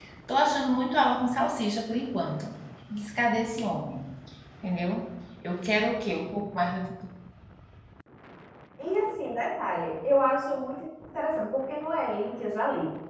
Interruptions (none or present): none